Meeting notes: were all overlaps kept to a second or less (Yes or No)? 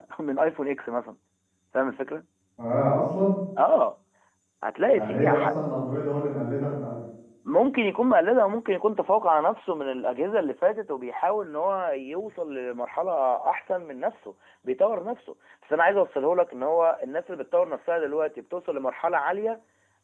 Yes